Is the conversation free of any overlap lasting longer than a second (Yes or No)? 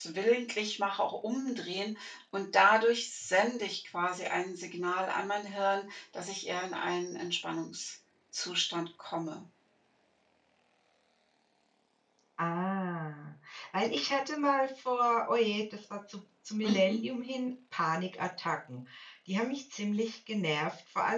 Yes